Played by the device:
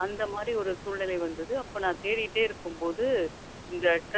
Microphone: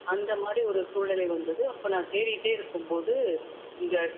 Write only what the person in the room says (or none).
none